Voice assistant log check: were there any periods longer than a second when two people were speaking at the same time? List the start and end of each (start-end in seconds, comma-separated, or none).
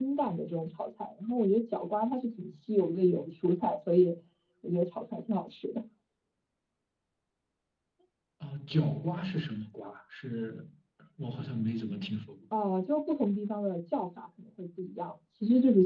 none